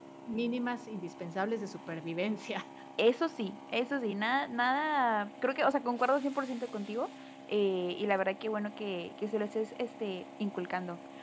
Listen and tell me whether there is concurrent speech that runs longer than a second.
No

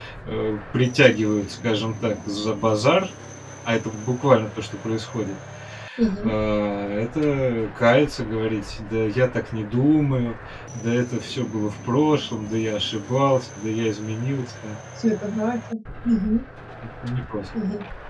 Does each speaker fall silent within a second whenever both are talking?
Yes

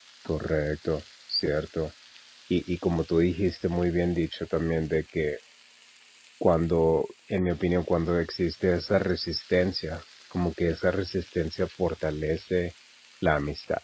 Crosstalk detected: No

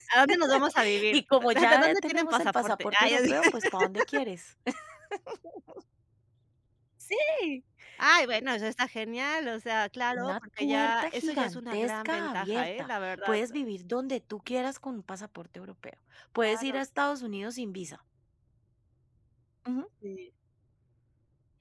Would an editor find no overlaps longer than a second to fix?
No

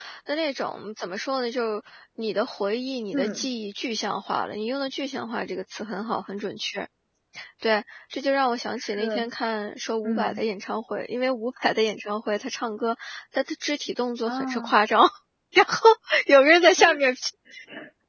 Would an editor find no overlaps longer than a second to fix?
Yes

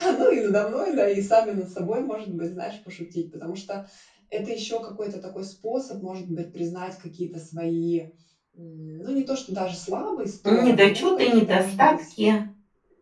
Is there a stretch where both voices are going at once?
Yes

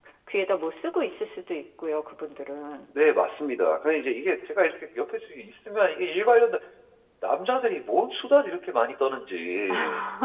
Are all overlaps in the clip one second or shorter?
Yes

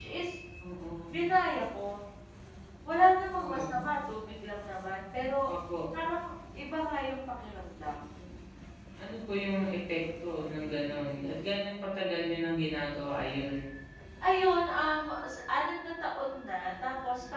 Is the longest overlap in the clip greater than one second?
No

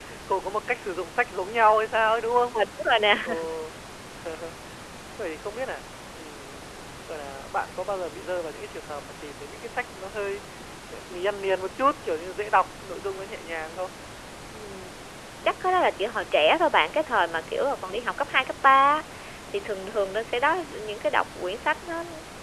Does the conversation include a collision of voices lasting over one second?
No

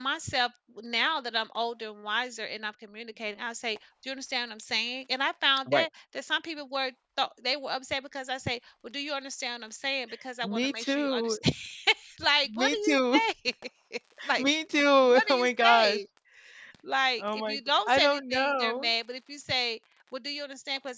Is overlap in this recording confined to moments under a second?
No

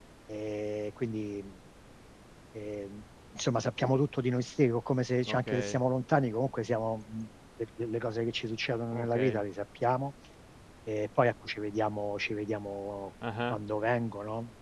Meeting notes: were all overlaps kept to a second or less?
Yes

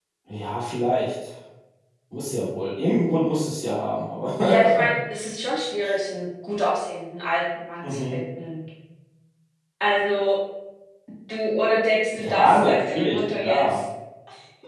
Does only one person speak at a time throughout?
No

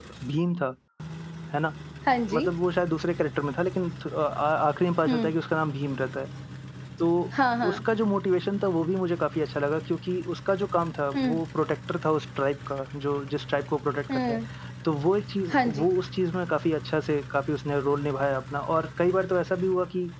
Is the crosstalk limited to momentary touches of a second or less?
Yes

